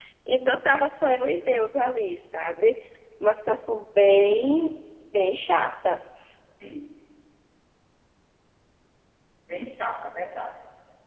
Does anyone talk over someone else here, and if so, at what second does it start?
none

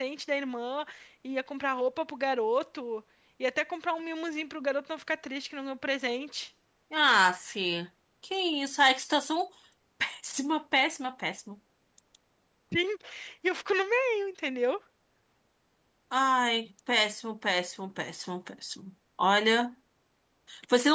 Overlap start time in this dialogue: none

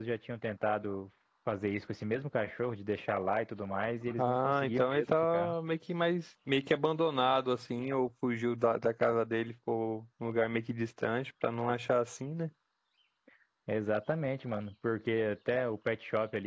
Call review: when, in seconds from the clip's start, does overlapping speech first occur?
4.2 s

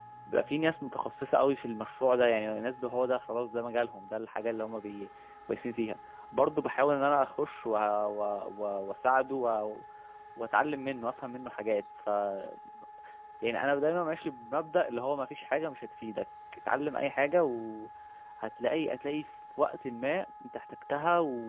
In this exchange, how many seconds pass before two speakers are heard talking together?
none

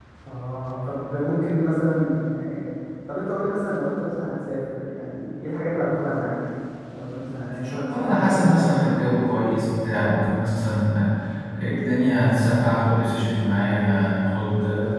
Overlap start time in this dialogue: 7.5 s

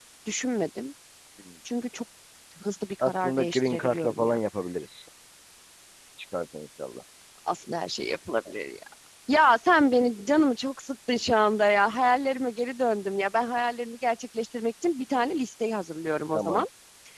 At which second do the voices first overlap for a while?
3.0 s

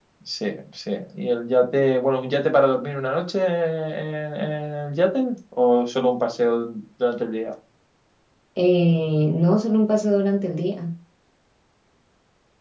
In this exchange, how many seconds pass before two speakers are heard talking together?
none

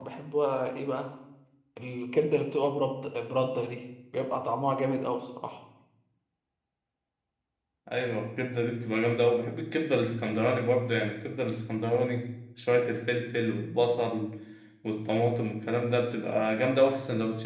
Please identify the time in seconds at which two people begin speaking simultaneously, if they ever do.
none

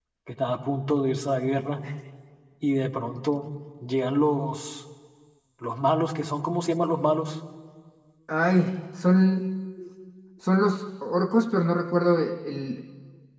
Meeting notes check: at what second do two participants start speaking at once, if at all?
none

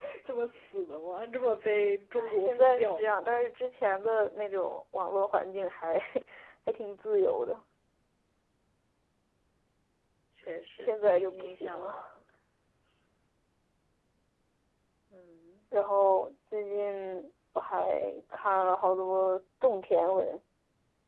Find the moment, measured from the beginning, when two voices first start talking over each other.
2.2 s

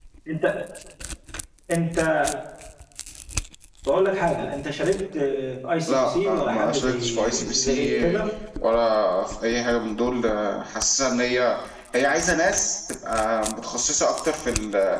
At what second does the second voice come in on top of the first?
5.9 s

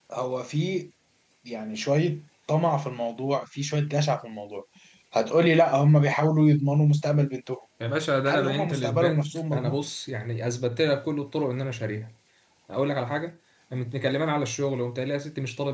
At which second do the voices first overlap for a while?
8.3 s

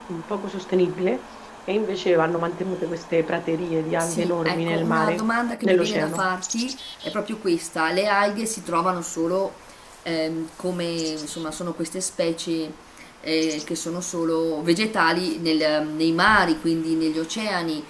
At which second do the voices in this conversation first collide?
4.0 s

